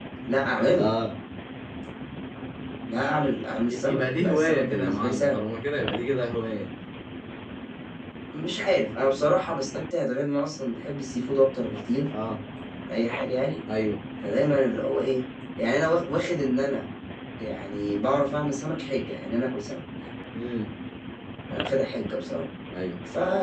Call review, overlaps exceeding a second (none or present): present